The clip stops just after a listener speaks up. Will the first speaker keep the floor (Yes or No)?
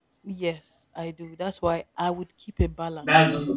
No